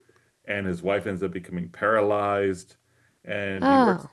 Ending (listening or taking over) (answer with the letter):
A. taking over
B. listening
B